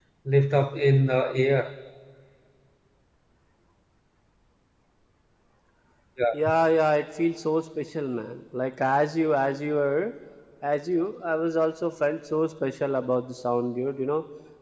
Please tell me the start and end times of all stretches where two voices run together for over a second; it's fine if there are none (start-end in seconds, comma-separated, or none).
none